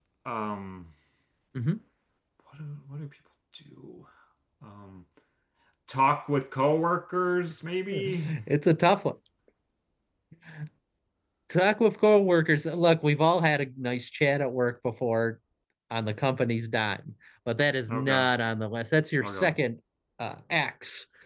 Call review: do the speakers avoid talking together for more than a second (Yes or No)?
Yes